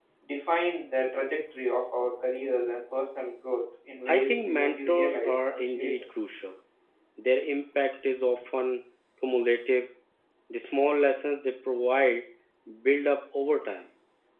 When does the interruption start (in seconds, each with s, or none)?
4.0 s